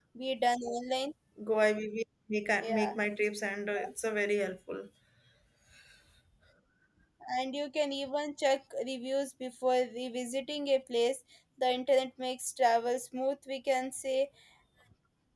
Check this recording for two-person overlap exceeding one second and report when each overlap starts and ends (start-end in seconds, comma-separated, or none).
none